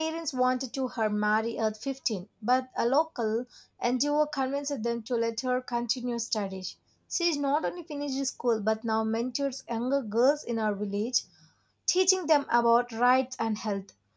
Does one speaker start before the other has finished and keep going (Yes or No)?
No